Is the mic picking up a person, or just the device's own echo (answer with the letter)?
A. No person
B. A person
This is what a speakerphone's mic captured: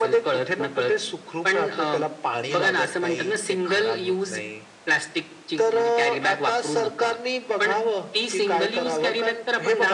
A